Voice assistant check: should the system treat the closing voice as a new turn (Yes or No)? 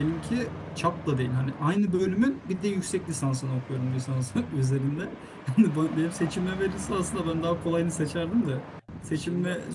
No